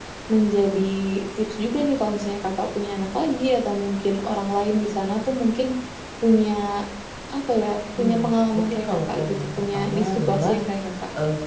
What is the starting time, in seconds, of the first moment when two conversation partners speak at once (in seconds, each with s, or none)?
8.0 s